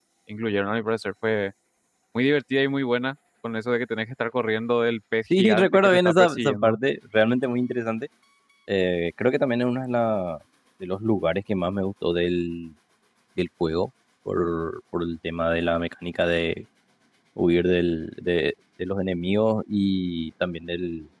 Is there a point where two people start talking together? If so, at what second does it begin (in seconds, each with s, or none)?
5.3 s